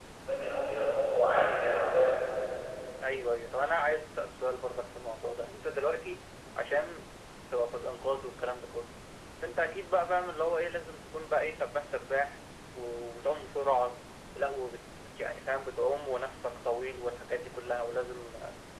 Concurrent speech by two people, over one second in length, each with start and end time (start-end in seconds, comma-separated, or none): none